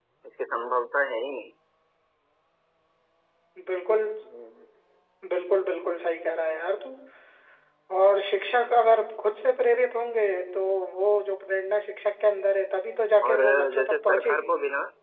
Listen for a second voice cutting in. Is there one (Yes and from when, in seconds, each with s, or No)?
Yes, from 13.2 s